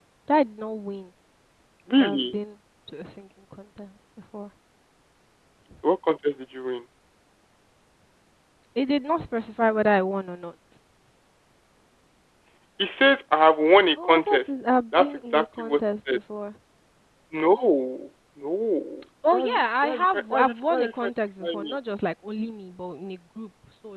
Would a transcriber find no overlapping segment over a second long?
No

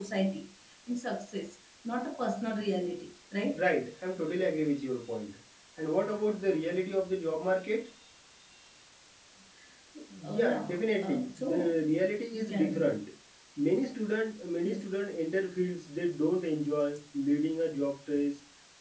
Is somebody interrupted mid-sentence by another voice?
Yes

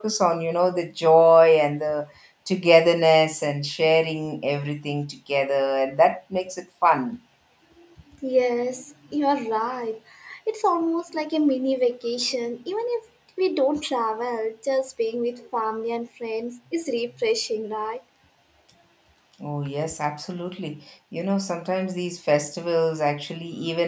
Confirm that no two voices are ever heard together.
Yes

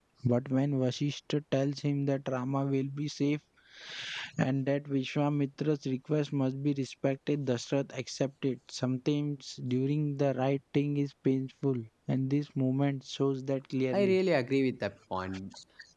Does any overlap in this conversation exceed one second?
No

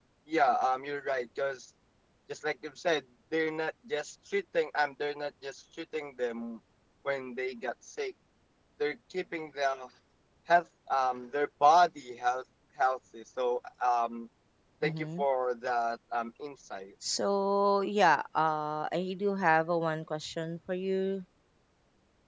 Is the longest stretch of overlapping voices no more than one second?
Yes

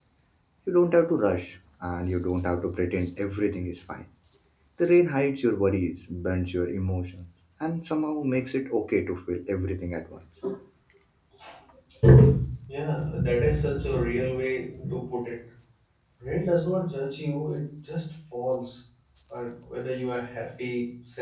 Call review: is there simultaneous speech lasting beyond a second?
No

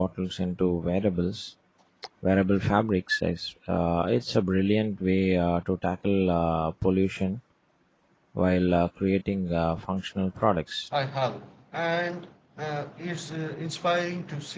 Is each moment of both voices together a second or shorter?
Yes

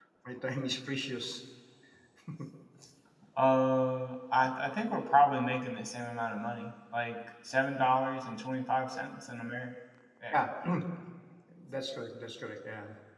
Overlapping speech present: No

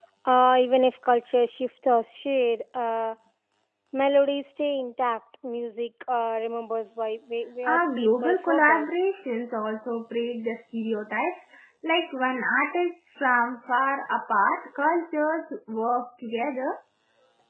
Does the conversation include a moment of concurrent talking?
Yes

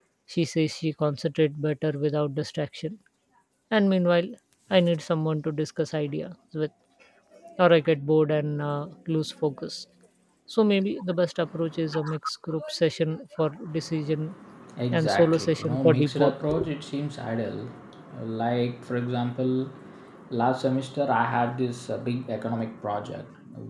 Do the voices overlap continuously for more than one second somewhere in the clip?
Yes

